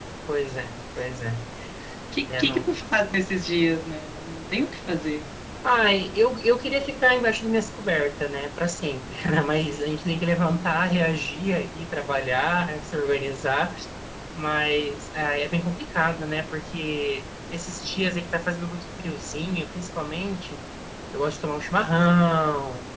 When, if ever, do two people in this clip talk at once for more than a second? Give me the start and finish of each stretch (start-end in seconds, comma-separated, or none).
none